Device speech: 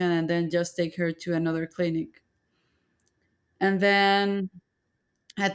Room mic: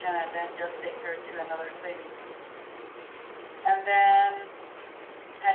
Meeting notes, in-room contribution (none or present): none